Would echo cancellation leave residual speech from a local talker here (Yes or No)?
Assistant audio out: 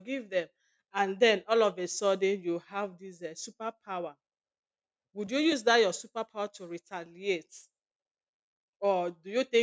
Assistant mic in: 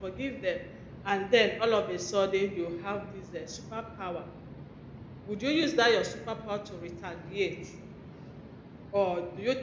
No